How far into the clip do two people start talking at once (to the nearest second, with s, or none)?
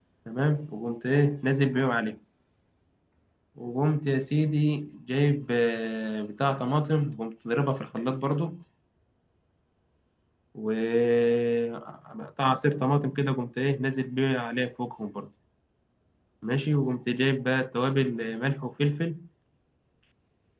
none